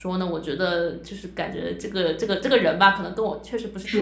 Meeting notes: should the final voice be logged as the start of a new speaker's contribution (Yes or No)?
Yes